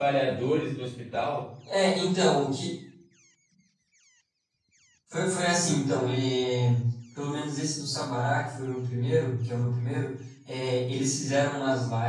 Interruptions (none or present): none